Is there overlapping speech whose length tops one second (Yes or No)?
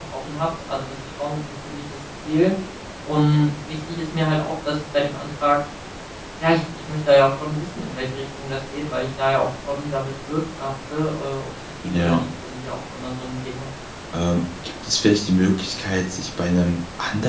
No